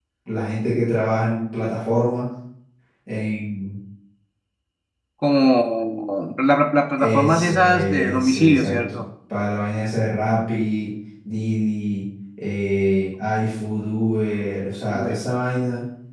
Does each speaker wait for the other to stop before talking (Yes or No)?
No